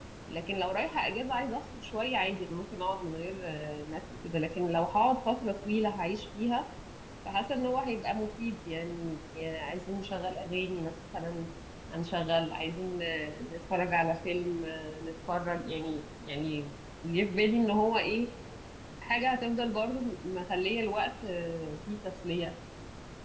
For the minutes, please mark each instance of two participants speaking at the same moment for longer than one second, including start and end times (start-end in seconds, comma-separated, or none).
none